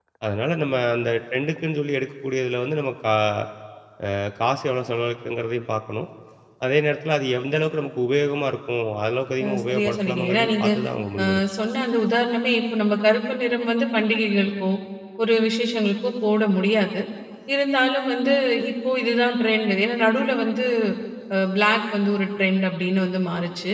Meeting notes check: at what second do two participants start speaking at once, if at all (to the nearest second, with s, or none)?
9 s